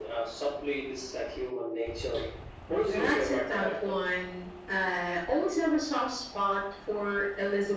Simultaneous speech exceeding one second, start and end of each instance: 2.7-3.9

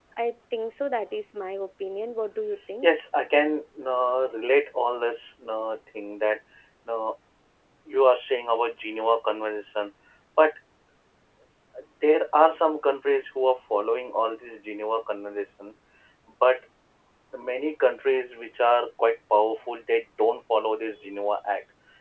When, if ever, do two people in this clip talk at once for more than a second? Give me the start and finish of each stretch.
none

